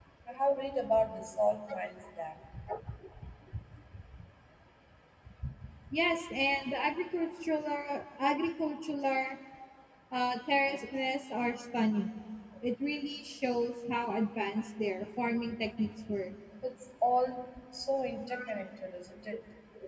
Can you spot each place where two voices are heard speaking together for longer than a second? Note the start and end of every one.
none

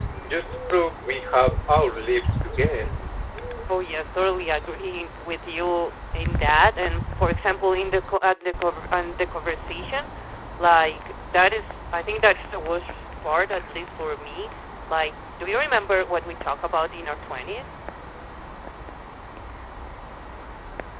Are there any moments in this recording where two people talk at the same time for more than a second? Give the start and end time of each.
none

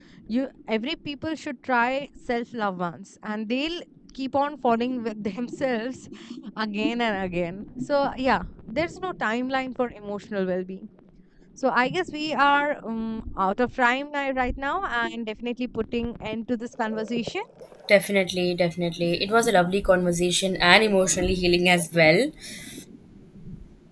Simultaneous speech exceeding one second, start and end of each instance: none

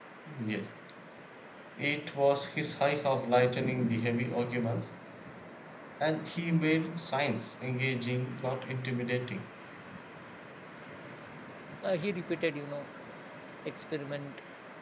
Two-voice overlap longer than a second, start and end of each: none

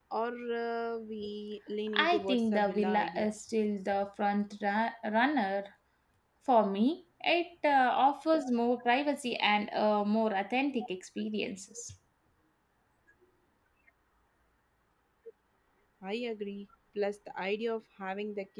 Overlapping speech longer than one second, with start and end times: 2.0-3.3

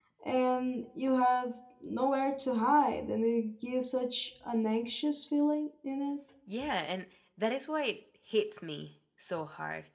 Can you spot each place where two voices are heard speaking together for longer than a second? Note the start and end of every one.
none

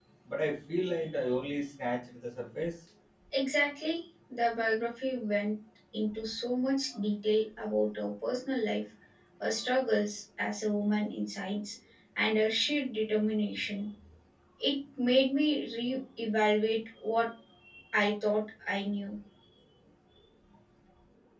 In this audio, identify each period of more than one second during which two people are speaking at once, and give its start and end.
none

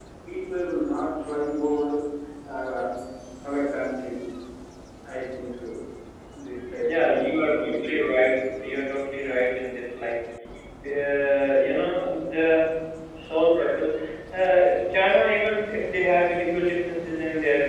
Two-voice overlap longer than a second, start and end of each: 6.8-8.1

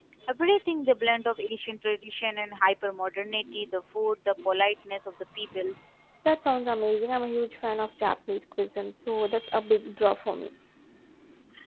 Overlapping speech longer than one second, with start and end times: none

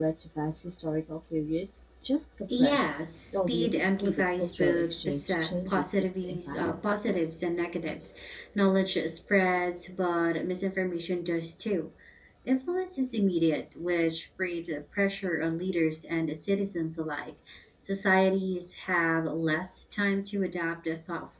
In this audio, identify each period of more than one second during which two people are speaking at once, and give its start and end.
3.5-6.6

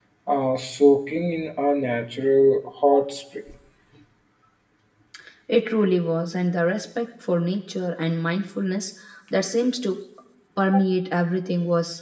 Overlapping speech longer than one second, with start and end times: none

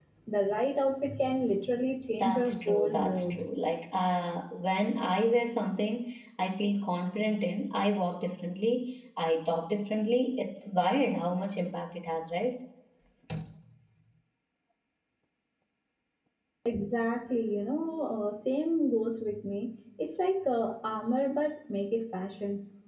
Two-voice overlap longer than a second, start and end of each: 2.1-3.4

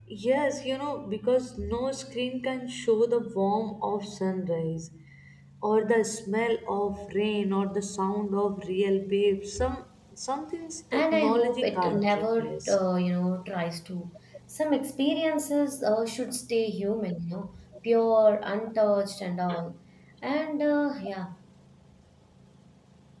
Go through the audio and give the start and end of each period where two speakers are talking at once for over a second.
10.9-12.8

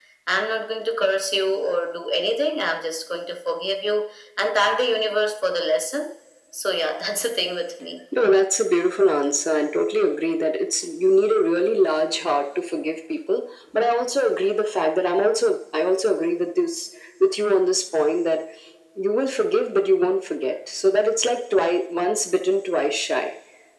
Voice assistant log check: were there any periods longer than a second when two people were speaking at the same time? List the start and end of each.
none

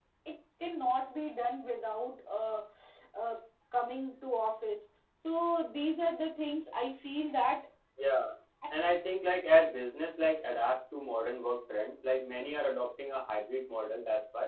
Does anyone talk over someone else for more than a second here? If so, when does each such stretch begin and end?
none

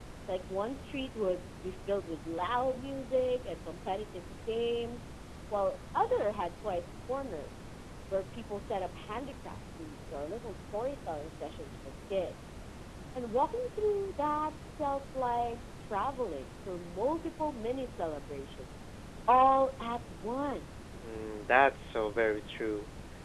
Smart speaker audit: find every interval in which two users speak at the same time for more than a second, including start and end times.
none

